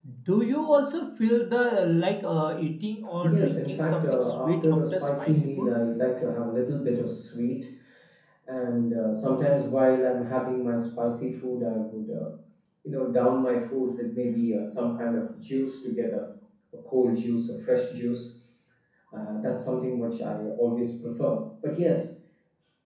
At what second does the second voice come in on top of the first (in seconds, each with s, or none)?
3.2 s